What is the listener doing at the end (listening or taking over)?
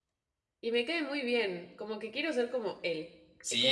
taking over